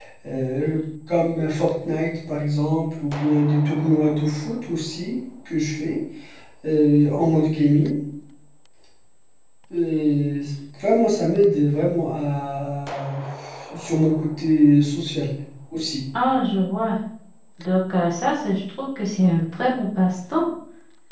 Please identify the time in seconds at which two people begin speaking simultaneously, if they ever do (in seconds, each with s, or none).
none